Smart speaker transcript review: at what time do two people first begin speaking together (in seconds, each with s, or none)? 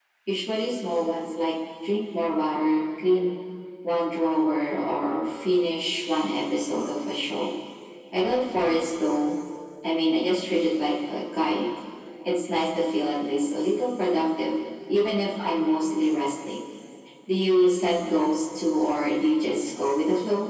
none